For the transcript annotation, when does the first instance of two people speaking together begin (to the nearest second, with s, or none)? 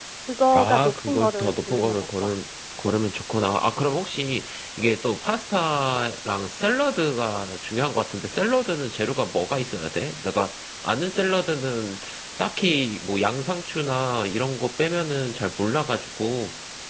1 s